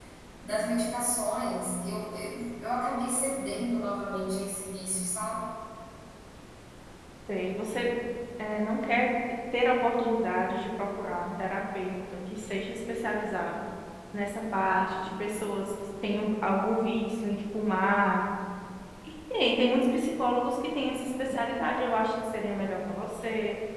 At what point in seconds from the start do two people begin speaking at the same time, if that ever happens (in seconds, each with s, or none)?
none